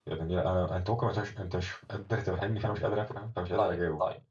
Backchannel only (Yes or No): No